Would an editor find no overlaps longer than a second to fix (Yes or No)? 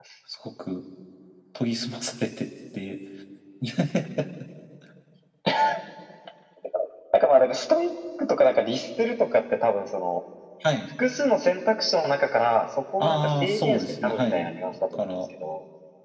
No